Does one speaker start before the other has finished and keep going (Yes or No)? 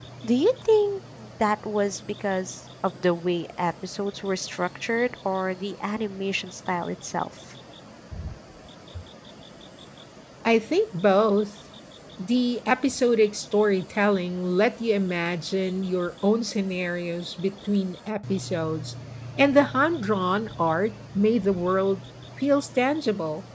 No